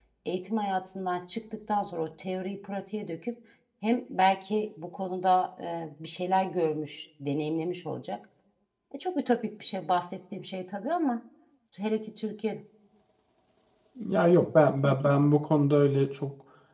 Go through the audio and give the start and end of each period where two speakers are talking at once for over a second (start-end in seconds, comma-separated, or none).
none